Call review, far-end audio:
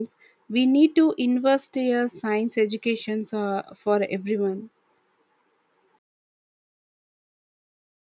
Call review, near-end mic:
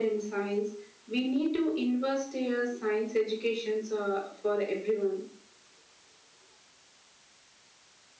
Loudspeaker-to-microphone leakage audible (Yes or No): Yes